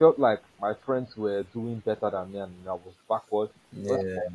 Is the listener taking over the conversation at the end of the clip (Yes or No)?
No